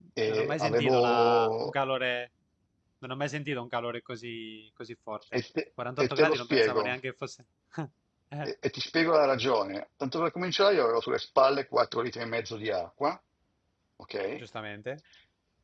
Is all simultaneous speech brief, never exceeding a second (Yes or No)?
No